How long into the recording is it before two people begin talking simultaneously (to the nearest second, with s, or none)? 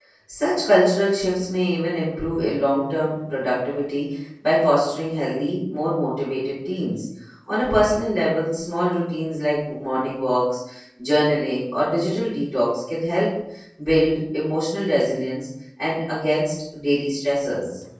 none